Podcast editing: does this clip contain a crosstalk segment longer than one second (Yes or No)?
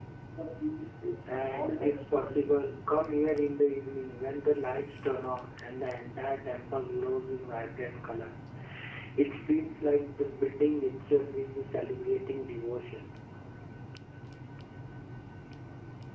Yes